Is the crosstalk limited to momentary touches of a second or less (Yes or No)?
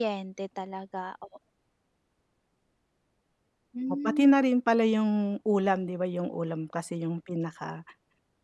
Yes